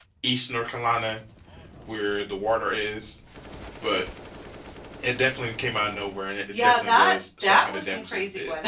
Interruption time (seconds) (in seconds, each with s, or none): 6.5 s